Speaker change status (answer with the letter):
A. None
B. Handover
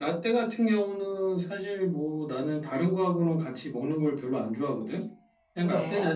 A